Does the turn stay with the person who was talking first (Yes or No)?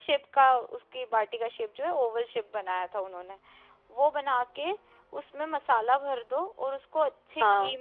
Yes